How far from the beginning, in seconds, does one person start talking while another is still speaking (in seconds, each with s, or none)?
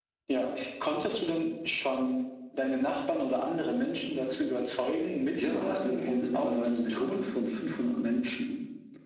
5.4 s